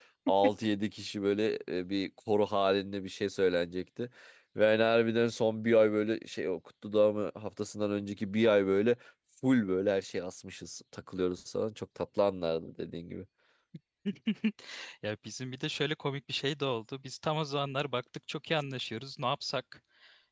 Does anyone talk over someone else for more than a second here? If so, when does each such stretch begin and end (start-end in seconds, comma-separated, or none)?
none